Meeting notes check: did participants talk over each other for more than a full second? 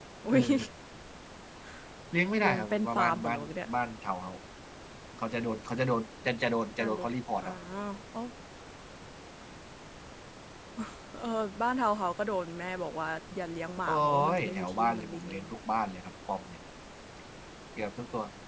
Yes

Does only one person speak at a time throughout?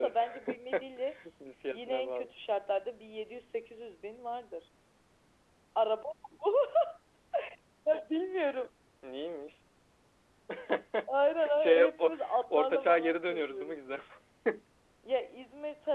No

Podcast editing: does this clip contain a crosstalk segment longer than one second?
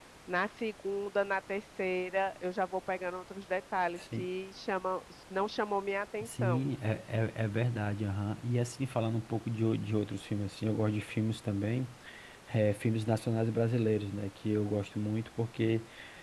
No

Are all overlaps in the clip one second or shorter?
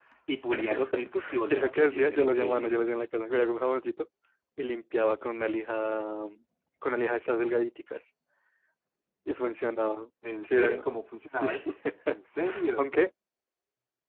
No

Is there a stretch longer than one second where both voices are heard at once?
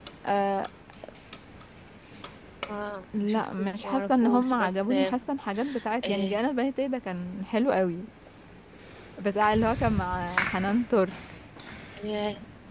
Yes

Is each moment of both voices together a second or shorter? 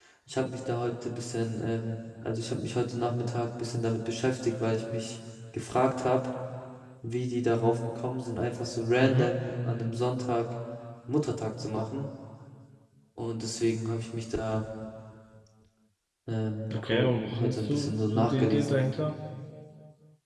No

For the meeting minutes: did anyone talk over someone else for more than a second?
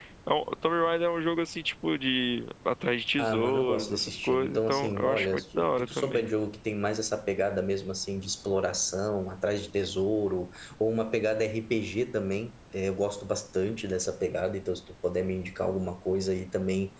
Yes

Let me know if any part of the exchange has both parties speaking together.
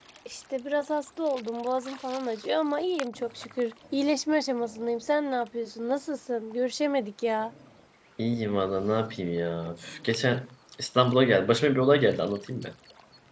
No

